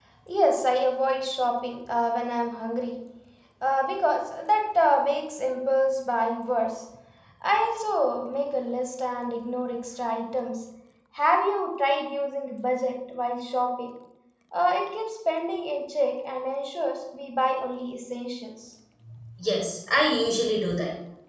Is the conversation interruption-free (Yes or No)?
Yes